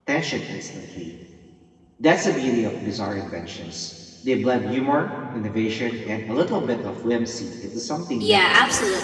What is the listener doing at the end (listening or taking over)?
taking over